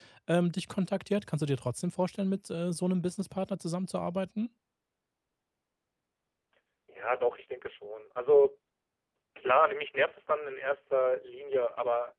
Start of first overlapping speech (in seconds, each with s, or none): none